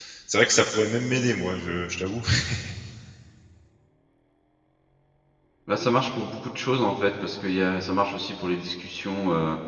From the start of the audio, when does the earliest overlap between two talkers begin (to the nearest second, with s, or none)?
none